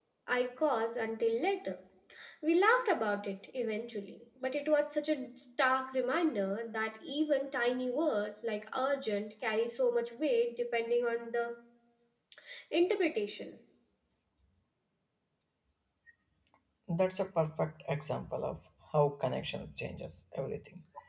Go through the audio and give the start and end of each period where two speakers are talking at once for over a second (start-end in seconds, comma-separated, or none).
none